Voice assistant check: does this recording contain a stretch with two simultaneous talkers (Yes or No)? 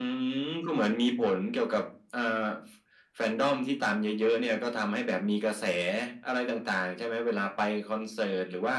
No